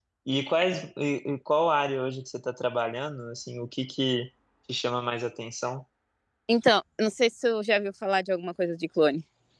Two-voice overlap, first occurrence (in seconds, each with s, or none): none